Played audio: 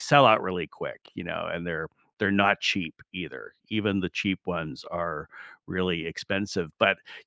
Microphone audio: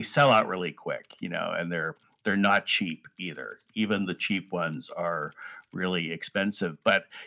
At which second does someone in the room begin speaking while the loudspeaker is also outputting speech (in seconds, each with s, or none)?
none